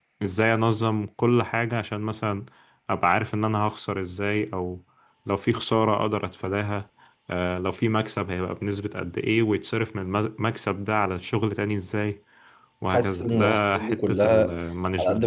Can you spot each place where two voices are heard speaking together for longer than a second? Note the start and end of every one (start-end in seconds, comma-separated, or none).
12.9-14.6